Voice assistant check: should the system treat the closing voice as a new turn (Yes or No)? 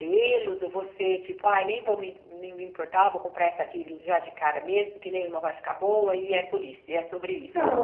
Yes